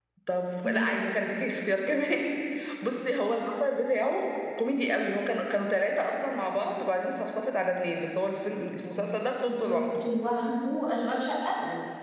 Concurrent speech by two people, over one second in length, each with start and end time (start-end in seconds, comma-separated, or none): none